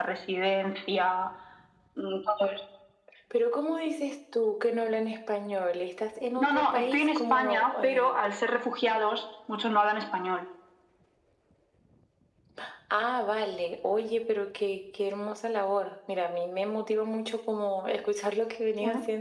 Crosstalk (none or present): present